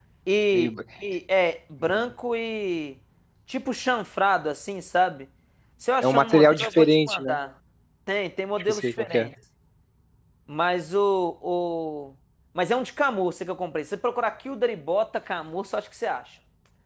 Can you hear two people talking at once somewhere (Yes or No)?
Yes